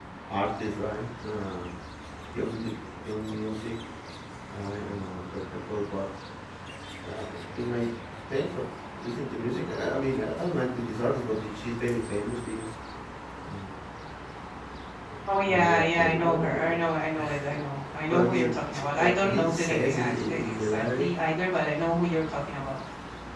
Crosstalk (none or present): present